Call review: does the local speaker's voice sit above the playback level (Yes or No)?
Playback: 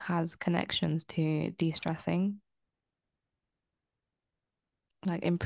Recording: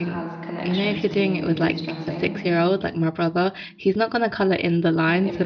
Yes